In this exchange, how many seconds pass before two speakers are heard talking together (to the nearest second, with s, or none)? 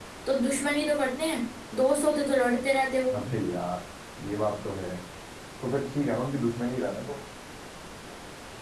none